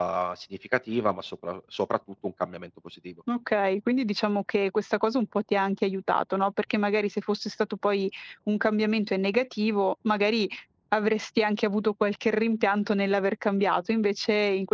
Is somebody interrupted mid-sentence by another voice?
No

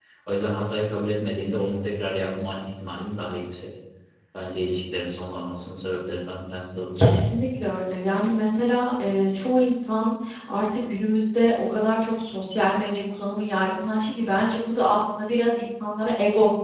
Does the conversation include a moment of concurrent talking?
No

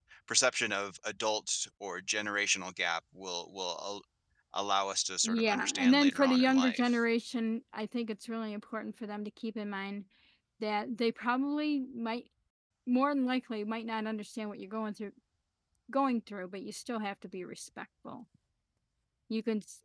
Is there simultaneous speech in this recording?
Yes, from 5.2 s

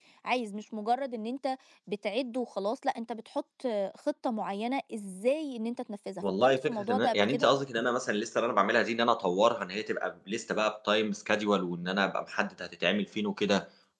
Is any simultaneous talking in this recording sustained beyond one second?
Yes, from 6.2 s

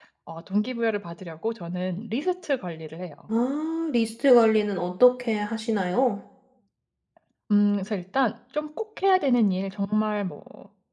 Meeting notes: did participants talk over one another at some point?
No

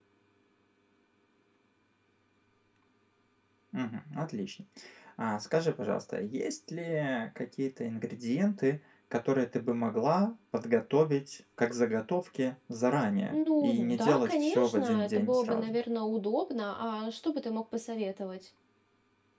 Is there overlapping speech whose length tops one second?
Yes, from 13.2 s

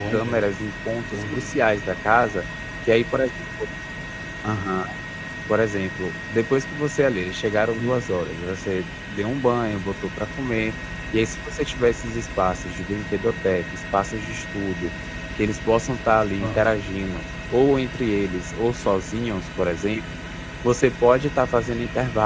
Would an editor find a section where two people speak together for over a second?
No

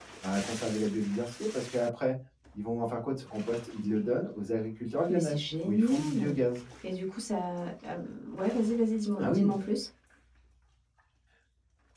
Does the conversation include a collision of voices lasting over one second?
Yes, from 5.1 s

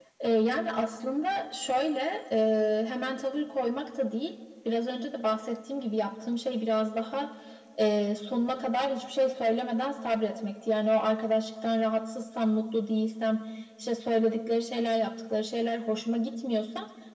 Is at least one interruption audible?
No

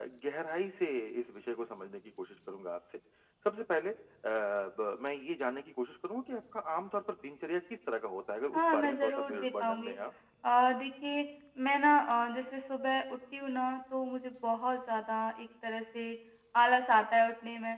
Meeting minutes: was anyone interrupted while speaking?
Yes, from 8.5 s

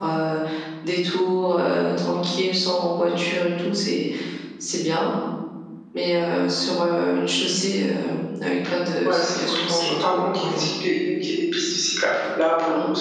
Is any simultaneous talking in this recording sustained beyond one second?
Yes, from 9.1 s

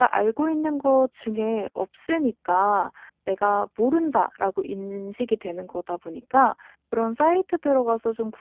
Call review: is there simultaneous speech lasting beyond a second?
No

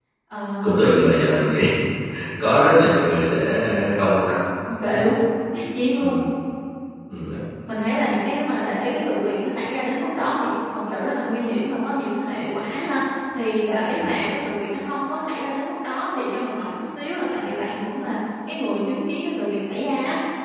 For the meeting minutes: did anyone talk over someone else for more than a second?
No

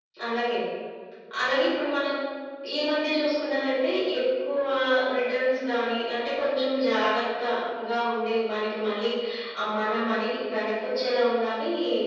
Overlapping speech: No

